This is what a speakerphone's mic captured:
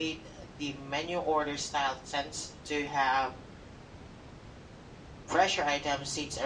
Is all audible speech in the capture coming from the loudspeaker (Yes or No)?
Yes